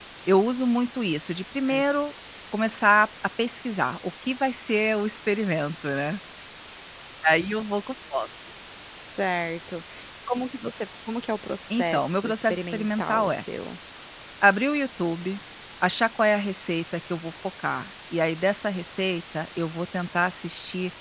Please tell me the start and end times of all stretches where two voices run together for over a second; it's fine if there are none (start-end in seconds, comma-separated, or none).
11.7-13.4